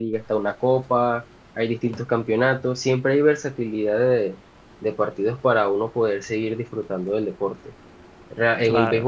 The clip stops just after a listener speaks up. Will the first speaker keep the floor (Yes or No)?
Yes